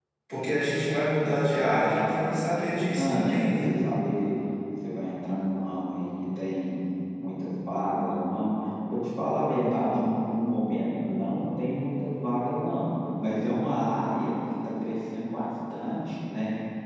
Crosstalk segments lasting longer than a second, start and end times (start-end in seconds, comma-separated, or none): 1.2-3.7